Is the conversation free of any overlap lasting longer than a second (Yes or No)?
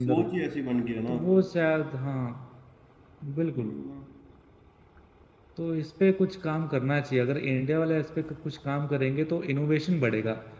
Yes